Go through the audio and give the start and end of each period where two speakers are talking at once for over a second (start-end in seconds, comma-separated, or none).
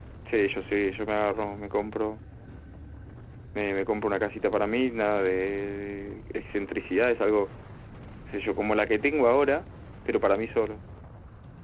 none